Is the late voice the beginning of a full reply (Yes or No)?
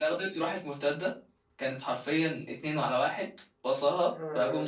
Yes